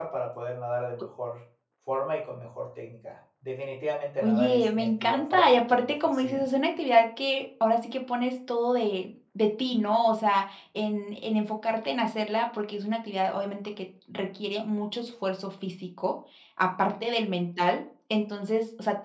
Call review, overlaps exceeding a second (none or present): present